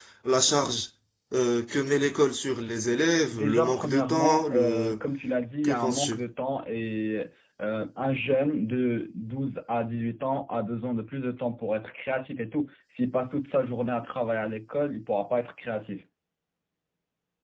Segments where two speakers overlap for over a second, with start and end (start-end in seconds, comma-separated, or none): 3.3-5.0